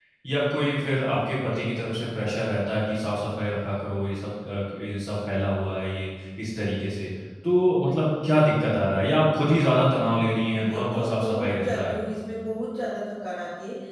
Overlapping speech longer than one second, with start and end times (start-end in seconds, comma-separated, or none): 10.5-12.0